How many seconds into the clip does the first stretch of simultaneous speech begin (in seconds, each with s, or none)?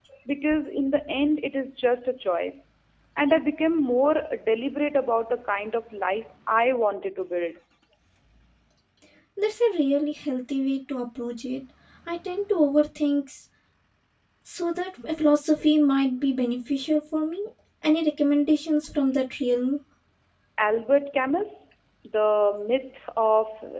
none